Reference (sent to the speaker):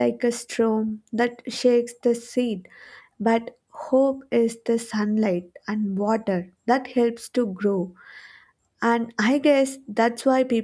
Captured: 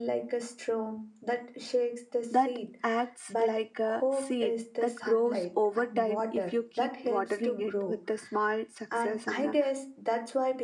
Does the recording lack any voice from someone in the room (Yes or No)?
No